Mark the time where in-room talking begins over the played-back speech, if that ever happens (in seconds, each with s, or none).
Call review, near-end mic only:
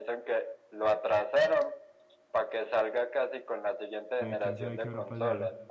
4.2 s